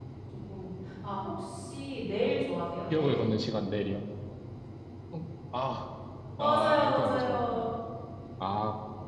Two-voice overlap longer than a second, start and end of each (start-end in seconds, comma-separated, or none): 6.4-7.6